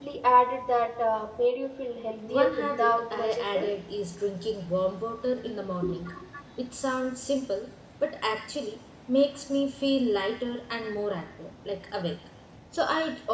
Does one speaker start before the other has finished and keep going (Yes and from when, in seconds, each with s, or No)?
Yes, from 2.3 s